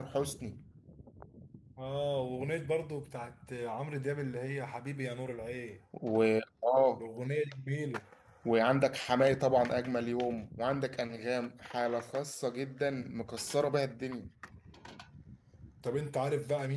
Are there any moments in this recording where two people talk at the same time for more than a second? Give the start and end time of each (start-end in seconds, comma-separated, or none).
none